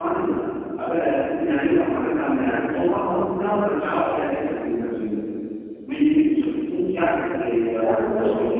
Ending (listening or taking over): taking over